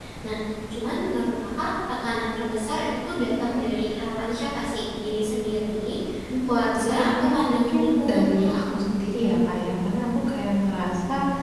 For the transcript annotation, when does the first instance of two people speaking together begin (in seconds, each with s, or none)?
6.5 s